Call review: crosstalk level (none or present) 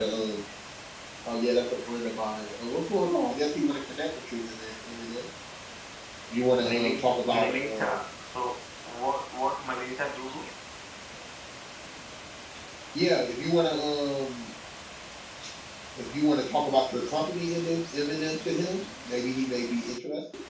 present